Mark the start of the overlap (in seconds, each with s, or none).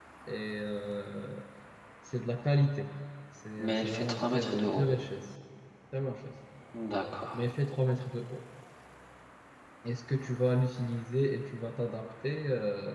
3.6 s